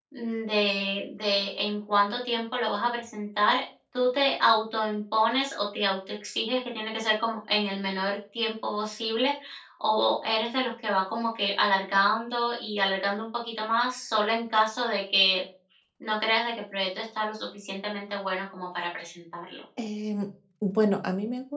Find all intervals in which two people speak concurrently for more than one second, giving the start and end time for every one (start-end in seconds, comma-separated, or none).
none